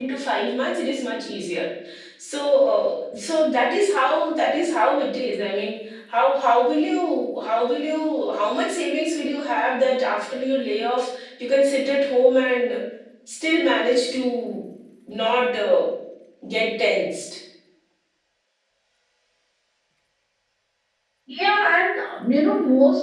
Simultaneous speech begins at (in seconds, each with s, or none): none